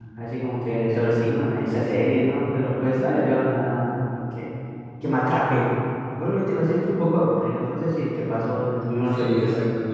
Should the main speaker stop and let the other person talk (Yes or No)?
Yes